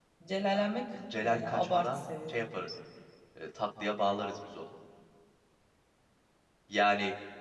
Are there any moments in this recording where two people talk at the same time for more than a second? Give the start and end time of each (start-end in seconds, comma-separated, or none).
1.2-2.4